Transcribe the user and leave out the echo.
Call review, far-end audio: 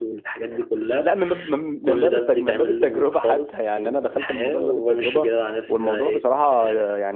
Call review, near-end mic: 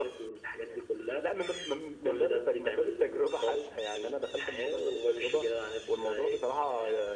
none

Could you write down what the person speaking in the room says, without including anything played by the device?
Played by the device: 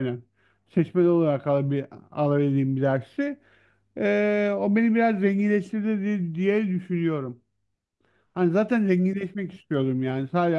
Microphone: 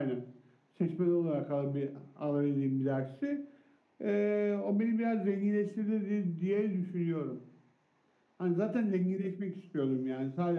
none

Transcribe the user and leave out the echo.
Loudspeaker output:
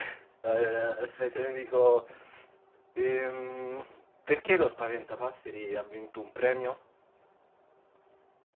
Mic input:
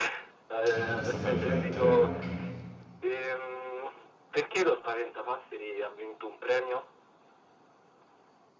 Eh, questo fa riflettere anche.

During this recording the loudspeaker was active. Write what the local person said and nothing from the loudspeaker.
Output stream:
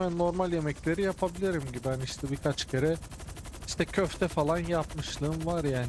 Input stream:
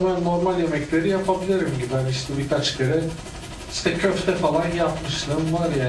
none

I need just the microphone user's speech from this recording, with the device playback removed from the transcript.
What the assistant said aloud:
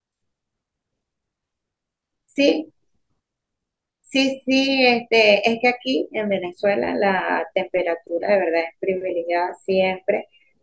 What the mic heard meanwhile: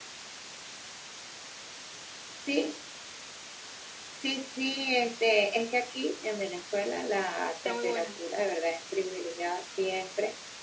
está muy bueno.

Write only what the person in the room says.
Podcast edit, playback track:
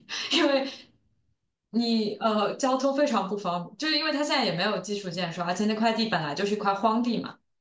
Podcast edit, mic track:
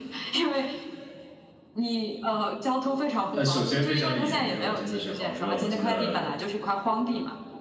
呃，首先非常炎热，真的是好热。我记得

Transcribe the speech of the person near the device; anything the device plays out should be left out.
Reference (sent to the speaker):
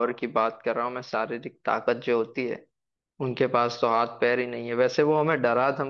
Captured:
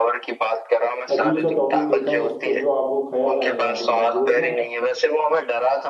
अजीब सा टॉपिक देता हूँ उस पे जो आपको ख्याल आए हो आप एक बार बोलना

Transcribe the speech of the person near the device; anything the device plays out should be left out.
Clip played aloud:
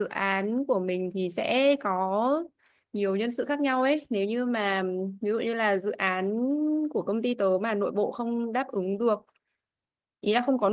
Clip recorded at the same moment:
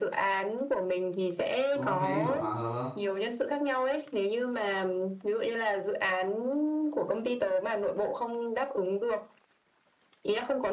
có thấy kiểu hòa hợp không?

